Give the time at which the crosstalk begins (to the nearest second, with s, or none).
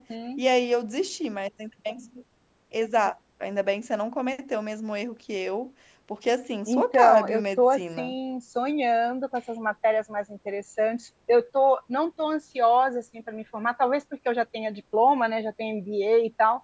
7 s